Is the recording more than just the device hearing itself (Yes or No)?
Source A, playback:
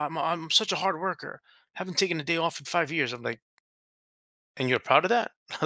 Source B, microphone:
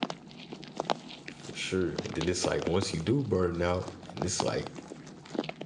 Yes